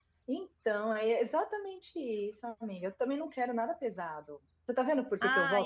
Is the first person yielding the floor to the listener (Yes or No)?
Yes